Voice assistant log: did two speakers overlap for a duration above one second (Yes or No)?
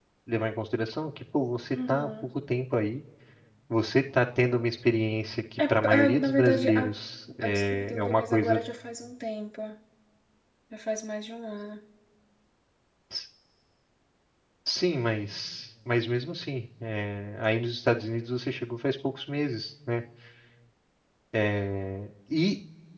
Yes